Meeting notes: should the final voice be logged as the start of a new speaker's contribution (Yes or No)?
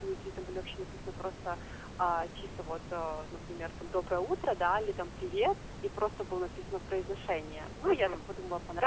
Yes